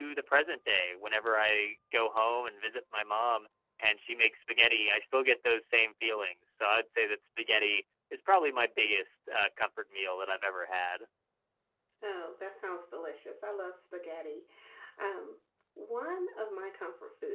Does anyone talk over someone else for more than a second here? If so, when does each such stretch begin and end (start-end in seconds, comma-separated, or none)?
none